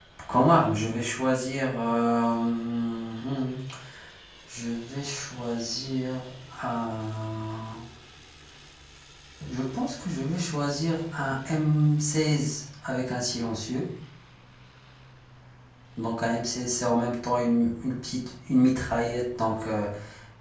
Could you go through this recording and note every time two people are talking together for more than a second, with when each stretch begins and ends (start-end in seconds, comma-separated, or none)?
none